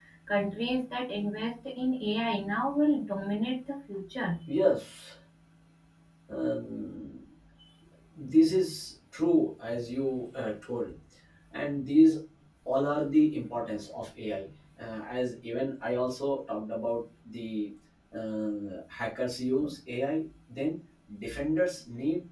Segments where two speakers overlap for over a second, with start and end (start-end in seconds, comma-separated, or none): none